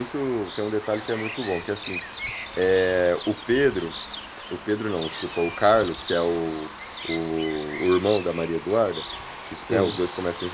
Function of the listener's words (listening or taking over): listening